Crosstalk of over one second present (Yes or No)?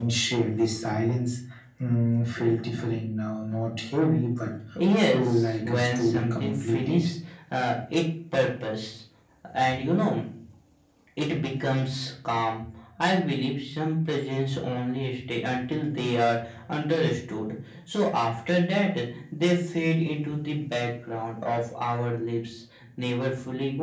Yes